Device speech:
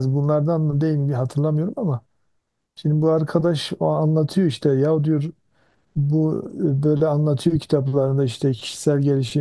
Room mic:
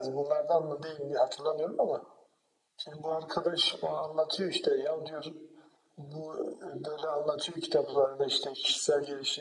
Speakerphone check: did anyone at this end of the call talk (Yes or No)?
No